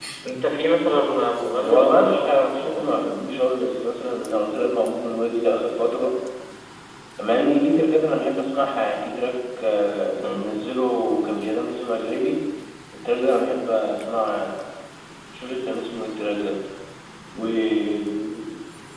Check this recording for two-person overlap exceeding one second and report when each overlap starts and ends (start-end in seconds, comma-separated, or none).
1.6-2.9